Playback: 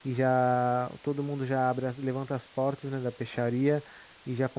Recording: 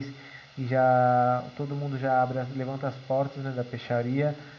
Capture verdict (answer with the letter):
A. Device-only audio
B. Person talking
A